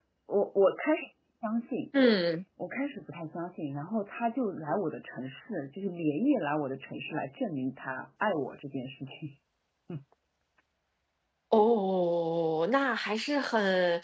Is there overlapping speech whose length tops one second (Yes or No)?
No